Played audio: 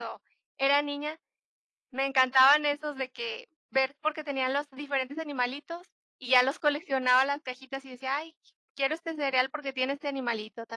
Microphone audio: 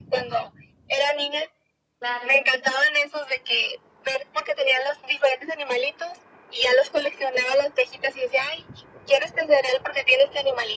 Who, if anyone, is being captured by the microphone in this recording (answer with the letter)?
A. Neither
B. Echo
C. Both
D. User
C